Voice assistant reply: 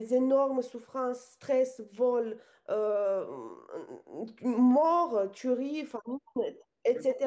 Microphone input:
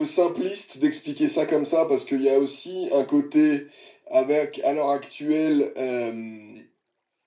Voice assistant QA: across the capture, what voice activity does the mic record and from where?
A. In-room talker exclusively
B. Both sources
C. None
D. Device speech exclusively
A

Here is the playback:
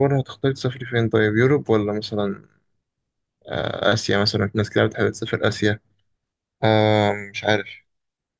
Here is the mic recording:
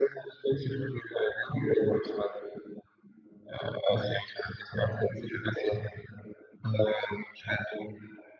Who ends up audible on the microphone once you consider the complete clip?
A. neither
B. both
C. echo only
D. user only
C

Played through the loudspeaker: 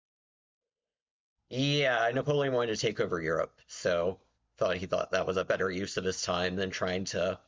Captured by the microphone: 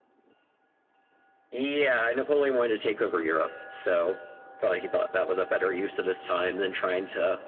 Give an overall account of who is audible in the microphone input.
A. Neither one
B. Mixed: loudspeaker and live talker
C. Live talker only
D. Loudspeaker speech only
D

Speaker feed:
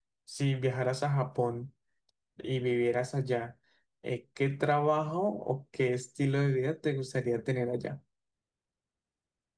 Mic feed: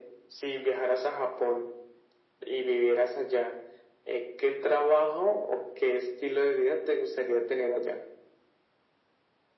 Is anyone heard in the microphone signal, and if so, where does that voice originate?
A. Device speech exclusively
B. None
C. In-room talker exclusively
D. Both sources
A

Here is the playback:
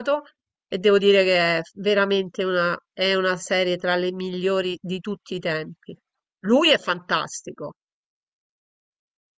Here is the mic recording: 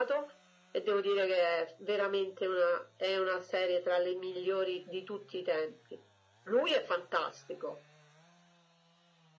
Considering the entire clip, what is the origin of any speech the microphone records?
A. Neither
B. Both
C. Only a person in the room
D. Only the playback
D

